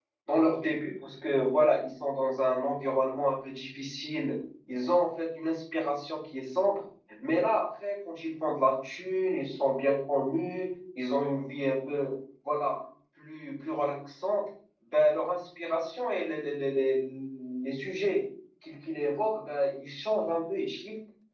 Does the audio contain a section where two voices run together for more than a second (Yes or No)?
No